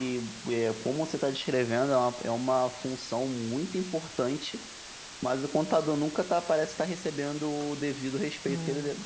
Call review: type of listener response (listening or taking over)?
listening